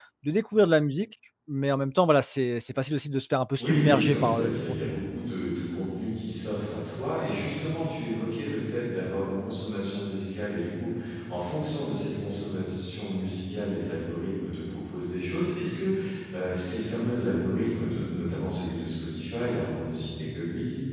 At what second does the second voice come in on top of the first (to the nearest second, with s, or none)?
4 s